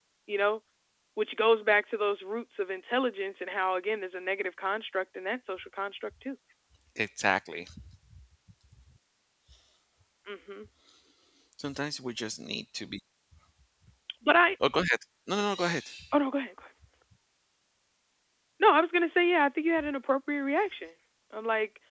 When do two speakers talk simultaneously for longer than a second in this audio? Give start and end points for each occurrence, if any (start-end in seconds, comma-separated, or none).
none